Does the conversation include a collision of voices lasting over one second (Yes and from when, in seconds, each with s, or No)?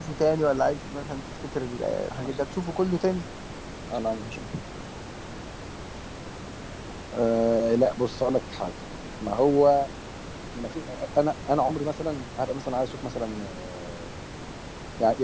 No